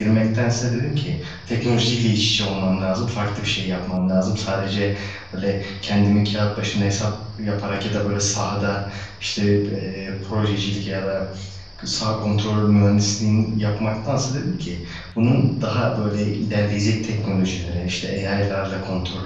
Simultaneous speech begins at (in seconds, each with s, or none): none